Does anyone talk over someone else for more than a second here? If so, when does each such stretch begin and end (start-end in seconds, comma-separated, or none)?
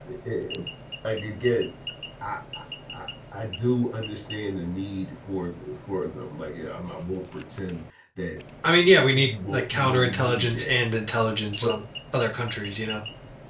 9.1-10.7